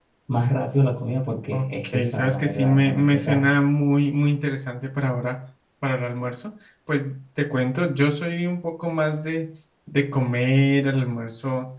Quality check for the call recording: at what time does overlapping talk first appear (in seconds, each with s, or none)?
1.5 s